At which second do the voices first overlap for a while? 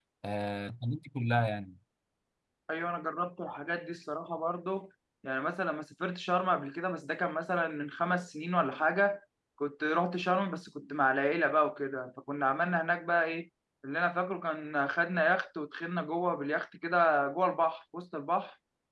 none

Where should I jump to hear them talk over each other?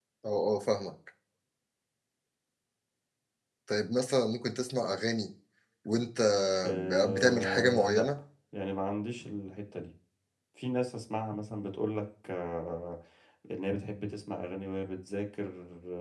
6.7 s

